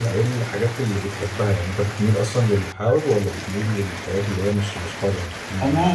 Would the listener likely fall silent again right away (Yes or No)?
No